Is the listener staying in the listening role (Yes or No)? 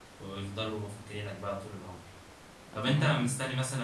Yes